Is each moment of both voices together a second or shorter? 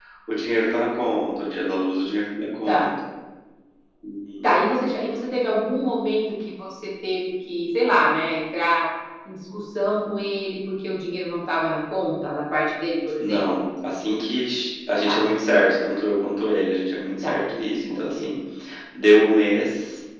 Yes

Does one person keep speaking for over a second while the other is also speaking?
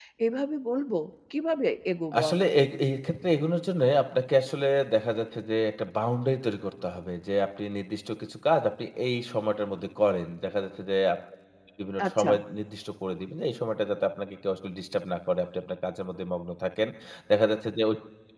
No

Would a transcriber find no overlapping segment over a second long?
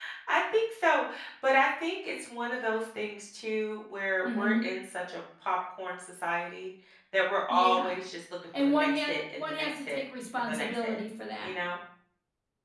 No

